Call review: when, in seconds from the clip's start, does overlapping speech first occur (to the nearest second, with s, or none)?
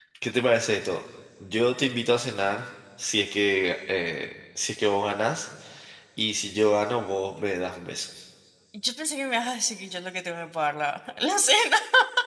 none